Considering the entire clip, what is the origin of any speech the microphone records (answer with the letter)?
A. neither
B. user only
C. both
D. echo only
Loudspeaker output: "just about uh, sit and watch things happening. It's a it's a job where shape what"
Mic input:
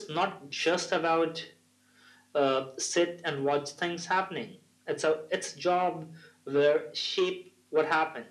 D